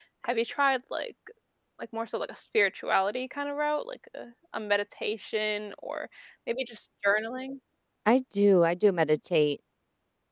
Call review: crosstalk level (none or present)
none